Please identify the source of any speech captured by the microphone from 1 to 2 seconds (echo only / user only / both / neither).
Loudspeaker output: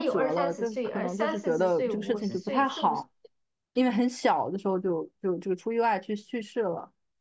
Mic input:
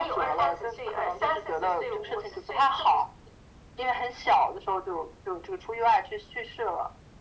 echo only